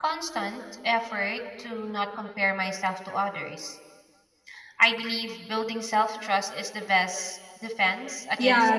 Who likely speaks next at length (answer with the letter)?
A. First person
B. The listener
B